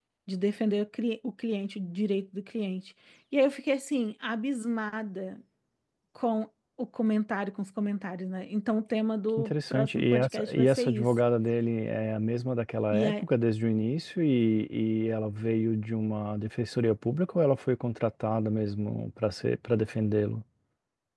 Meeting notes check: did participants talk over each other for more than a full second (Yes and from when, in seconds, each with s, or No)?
Yes, from 9.4 s